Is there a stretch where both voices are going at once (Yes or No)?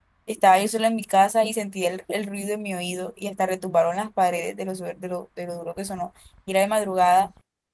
No